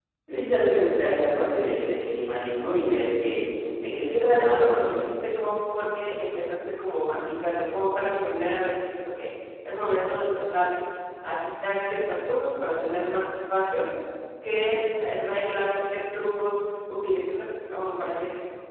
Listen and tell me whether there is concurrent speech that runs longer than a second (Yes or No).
Yes